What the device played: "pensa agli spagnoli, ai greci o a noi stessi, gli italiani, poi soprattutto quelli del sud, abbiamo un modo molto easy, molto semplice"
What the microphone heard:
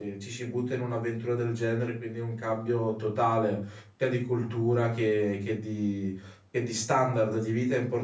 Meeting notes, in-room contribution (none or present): present